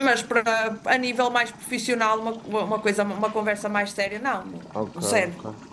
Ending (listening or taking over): taking over